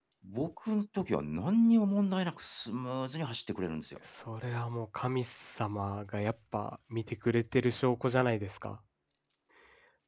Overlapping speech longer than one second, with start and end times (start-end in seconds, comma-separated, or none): none